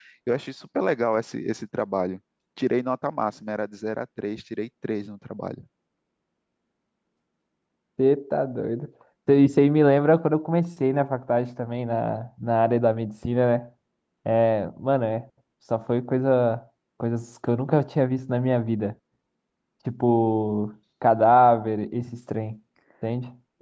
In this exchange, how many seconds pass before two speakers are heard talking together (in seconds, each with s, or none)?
none